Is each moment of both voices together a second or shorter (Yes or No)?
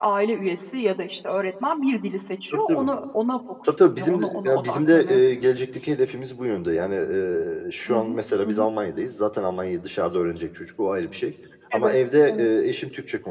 No